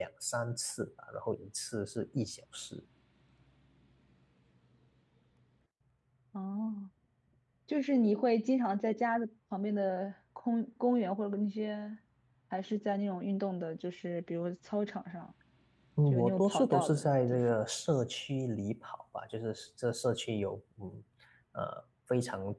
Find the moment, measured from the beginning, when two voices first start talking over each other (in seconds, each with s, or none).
16.1 s